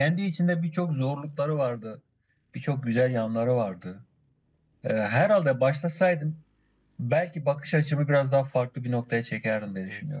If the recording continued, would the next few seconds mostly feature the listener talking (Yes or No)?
Yes